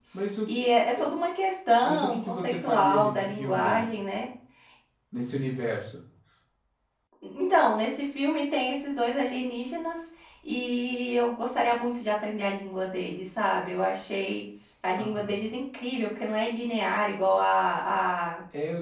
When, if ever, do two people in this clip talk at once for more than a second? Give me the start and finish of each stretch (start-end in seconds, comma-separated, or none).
1.8-3.9